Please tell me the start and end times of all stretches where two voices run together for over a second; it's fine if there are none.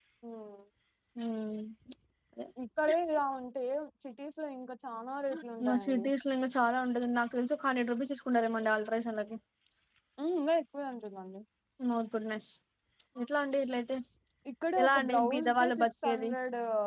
14.8-16.3

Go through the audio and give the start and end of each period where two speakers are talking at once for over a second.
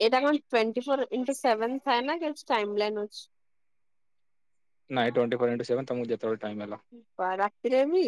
none

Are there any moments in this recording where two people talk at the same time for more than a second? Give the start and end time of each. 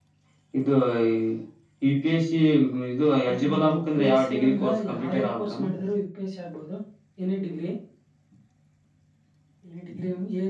3.3-5.7

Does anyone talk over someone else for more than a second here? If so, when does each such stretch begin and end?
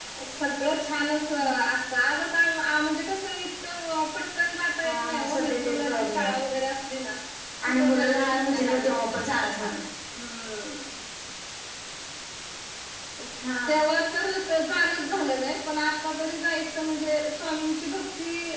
4.8-6.4, 7.7-9.7

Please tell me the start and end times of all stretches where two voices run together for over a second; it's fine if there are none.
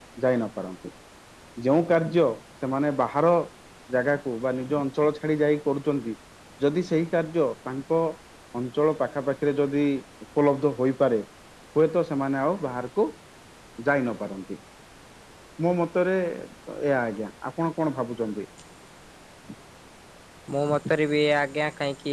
none

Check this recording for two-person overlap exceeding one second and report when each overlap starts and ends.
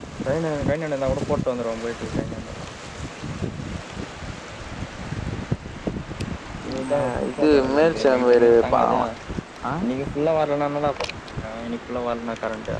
7.0-9.0

